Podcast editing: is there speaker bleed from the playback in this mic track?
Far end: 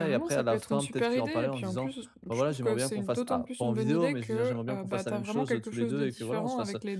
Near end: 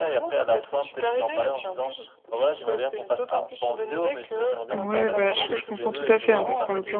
Yes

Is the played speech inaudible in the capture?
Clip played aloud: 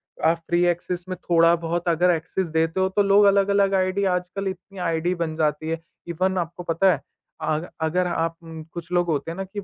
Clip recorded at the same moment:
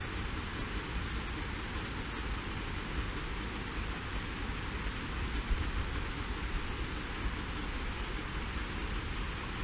Yes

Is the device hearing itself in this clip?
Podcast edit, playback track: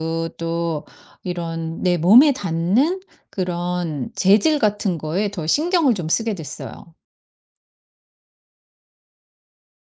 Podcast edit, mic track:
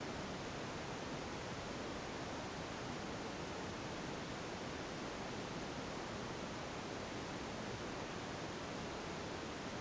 No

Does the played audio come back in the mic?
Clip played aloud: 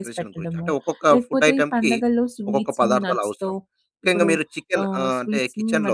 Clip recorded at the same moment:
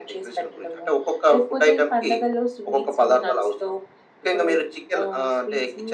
Yes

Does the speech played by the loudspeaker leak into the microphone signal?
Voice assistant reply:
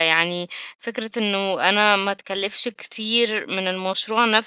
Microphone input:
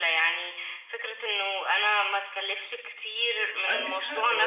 Yes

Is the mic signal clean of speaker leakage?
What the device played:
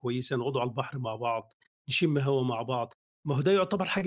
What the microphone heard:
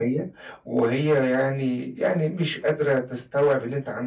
Yes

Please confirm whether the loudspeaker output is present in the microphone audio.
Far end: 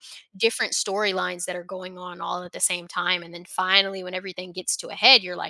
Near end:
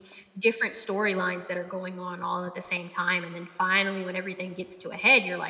Yes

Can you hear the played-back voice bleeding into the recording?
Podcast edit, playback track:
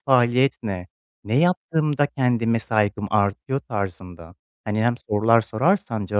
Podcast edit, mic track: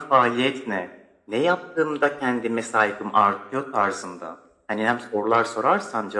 Yes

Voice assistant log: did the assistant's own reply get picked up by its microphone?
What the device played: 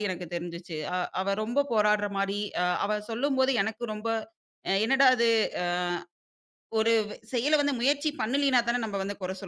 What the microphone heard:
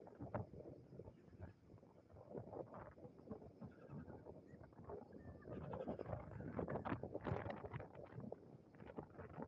No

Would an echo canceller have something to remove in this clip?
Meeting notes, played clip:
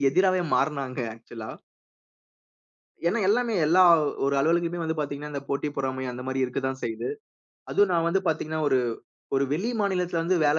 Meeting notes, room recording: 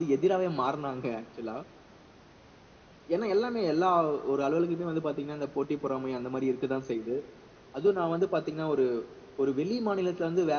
Yes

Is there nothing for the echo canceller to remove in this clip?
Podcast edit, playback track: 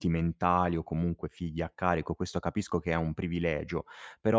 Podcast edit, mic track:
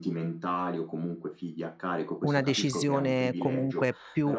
No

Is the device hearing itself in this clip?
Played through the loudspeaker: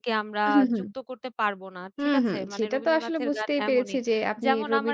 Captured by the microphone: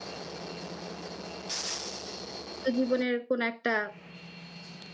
No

